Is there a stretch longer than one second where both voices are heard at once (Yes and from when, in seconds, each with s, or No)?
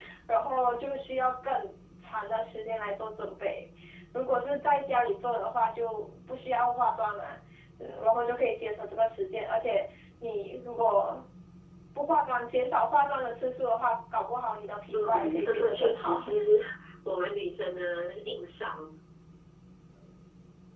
Yes, from 14.9 s